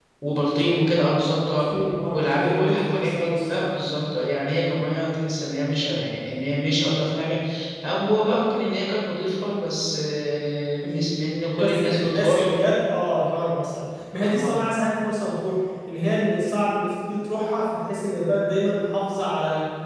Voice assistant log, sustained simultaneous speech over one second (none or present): present